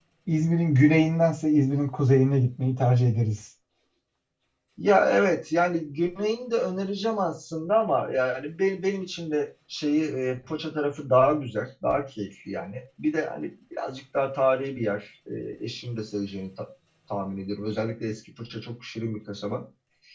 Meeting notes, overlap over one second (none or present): none